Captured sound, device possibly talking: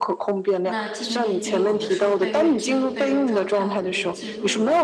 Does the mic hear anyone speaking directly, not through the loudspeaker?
Yes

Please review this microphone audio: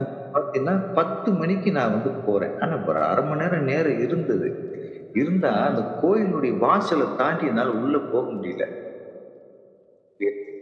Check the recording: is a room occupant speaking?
Yes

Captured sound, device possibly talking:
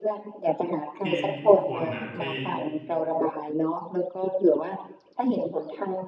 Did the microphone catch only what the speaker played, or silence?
No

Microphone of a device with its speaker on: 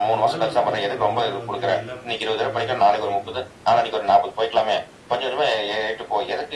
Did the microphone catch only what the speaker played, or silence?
No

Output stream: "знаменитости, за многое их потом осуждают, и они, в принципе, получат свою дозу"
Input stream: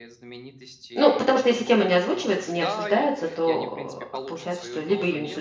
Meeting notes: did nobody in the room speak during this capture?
No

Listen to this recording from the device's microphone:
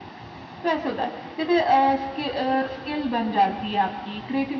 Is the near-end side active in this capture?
No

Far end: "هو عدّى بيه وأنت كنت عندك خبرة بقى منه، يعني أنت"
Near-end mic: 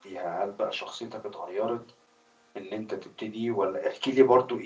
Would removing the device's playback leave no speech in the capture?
No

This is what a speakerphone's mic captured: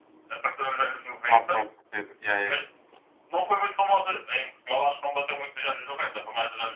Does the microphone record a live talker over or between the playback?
Yes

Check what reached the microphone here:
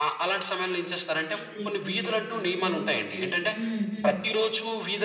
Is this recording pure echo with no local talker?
No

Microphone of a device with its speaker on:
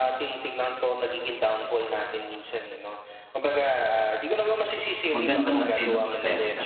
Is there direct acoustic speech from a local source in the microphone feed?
Yes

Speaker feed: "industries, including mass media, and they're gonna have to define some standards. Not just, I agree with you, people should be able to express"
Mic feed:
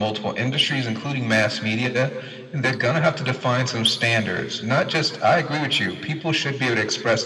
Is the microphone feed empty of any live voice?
Yes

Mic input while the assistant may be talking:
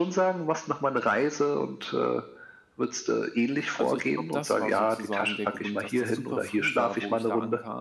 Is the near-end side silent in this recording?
No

